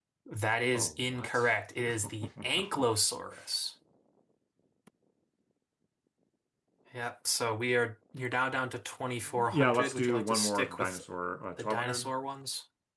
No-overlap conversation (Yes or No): No